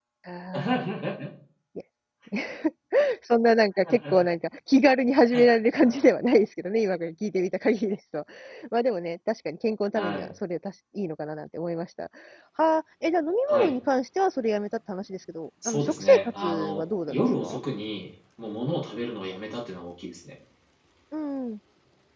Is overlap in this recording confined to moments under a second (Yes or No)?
No